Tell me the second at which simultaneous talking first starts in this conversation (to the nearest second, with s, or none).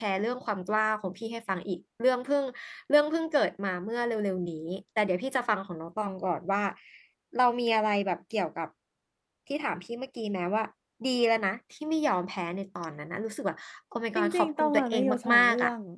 14 s